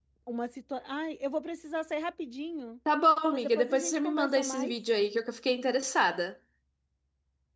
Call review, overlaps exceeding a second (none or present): present